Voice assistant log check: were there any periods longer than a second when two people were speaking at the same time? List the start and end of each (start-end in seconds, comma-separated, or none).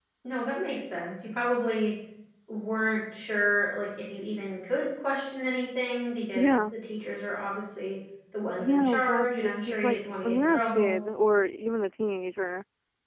8.6-11.0